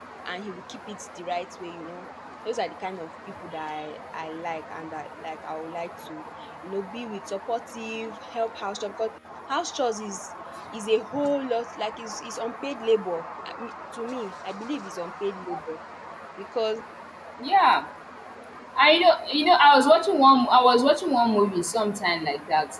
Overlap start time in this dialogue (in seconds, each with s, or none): none